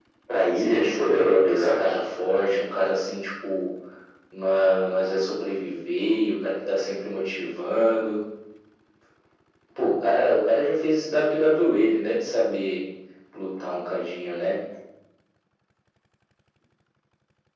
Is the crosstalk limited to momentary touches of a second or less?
No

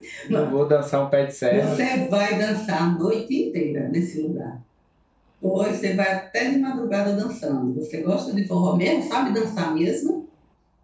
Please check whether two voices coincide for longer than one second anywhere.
No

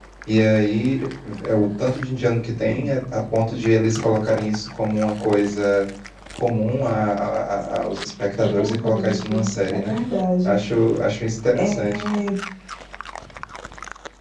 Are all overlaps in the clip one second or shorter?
No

